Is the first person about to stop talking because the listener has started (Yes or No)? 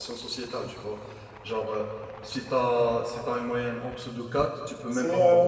Yes